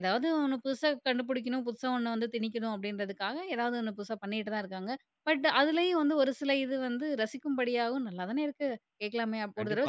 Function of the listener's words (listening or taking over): taking over